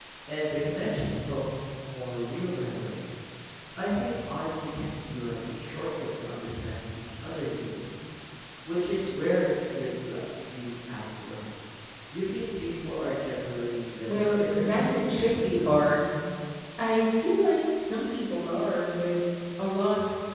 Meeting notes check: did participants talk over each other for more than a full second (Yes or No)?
Yes